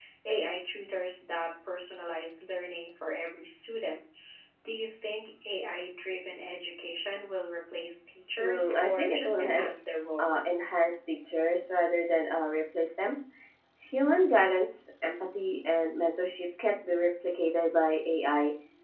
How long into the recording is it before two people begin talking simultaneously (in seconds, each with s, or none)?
8.4 s